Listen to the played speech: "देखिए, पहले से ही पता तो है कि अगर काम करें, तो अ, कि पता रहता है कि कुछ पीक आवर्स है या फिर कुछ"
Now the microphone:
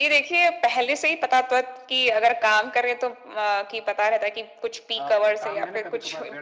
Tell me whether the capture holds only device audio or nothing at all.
No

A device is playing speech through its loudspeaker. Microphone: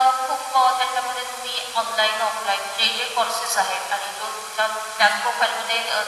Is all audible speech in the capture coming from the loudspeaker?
Yes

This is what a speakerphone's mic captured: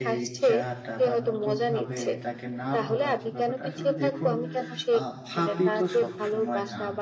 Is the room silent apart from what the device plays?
No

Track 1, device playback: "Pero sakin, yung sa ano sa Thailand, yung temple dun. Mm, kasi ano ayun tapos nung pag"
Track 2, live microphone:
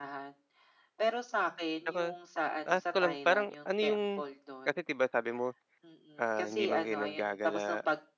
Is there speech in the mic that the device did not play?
Yes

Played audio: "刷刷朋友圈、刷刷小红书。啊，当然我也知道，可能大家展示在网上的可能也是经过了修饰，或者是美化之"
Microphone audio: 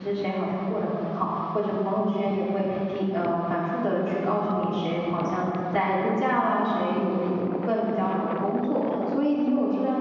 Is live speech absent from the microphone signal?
No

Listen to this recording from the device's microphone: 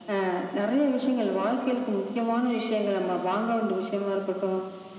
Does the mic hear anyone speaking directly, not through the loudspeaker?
No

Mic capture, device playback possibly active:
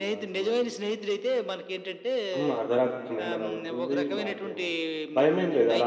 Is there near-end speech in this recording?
Yes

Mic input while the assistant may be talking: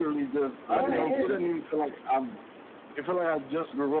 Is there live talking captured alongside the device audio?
Yes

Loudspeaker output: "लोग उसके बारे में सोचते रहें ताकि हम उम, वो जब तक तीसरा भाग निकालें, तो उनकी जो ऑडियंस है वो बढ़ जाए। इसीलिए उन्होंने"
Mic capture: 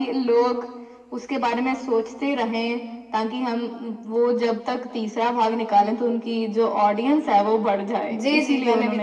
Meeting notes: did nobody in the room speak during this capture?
No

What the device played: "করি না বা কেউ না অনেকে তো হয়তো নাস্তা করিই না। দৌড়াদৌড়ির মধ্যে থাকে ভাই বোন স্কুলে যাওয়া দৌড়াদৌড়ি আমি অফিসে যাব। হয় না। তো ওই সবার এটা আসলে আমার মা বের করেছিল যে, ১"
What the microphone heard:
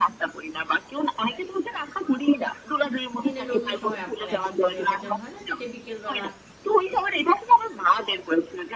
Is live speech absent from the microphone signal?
No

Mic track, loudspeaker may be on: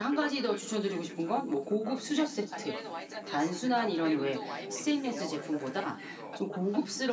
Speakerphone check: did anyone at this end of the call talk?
Yes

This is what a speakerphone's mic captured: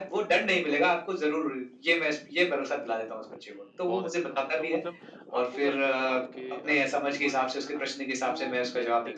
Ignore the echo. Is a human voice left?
Yes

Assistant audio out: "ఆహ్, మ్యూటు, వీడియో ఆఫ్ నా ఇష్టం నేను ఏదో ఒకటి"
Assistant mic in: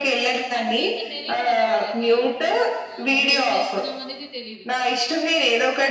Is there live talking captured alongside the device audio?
Yes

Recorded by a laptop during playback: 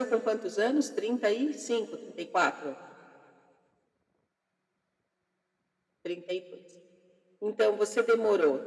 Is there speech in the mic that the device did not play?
No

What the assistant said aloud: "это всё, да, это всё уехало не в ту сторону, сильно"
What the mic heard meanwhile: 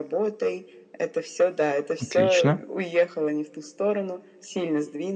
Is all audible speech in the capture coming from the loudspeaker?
No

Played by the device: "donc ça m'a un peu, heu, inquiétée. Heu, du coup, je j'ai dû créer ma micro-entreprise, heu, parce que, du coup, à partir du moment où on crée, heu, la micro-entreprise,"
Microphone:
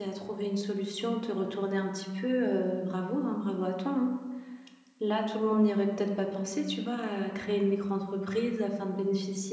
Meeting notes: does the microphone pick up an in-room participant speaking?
Yes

